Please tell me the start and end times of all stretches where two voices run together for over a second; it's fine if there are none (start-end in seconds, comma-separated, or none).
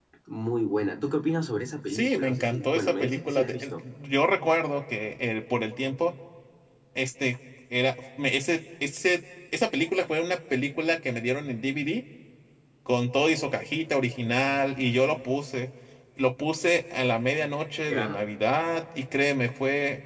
1.9-3.7